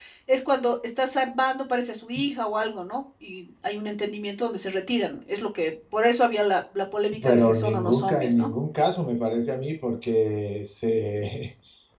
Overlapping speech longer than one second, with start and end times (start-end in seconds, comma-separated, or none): 7.2-8.5